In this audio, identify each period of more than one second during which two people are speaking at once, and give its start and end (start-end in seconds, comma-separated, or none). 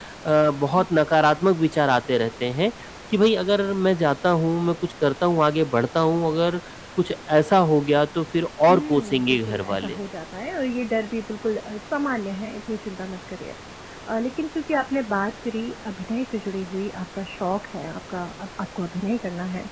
8.7-10.0